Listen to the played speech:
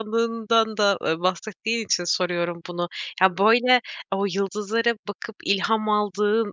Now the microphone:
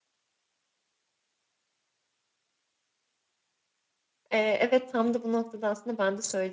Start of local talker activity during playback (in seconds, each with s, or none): 4.3 s